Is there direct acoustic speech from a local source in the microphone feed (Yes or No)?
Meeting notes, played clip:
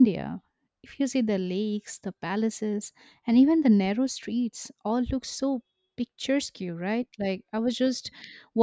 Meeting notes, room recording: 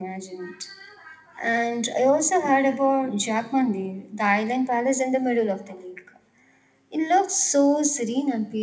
Yes